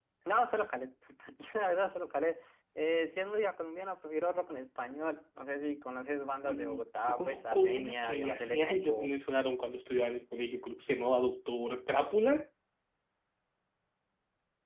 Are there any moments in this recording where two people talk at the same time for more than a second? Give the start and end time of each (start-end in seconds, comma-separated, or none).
6.4-9.1